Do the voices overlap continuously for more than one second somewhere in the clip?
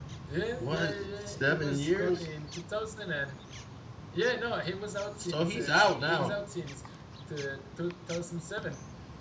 Yes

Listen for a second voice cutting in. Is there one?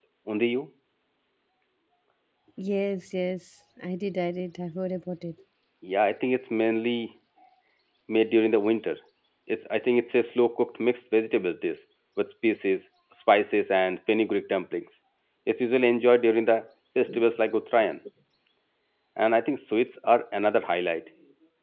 No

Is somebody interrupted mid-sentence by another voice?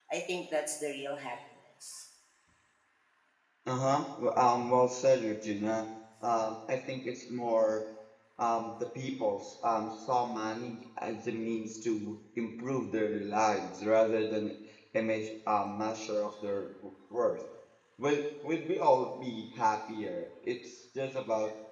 No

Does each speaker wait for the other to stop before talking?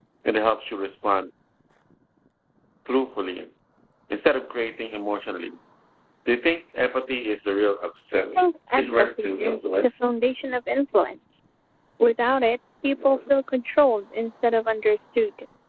No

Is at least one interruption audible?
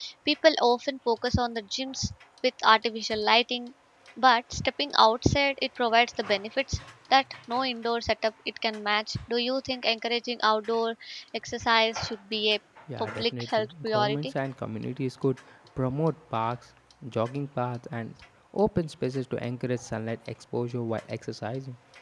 Yes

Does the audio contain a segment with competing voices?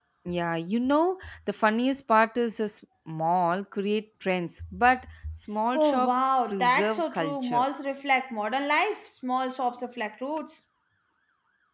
Yes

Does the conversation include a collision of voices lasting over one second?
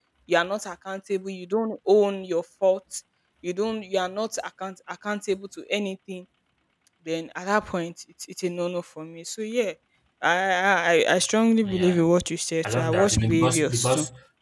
Yes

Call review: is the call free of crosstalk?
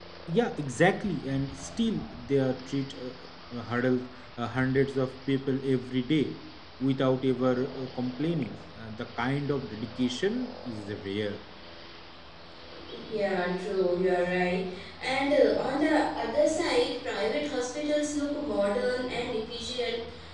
Yes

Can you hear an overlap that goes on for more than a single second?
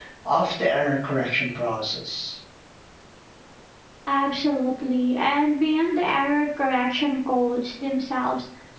No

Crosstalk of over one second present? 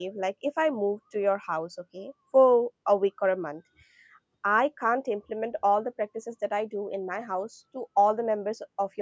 No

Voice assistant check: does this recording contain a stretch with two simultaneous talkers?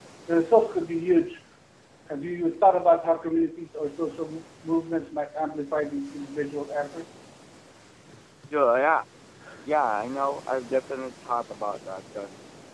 No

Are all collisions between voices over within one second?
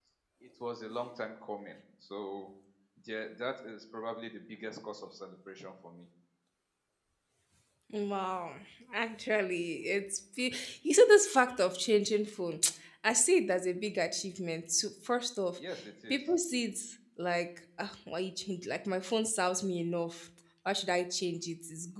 Yes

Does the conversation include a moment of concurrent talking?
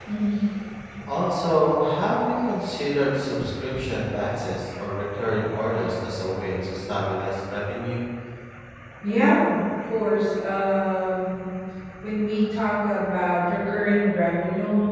No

